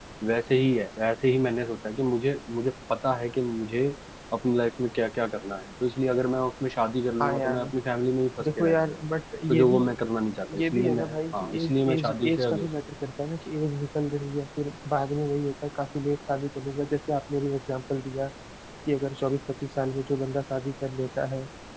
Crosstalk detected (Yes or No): Yes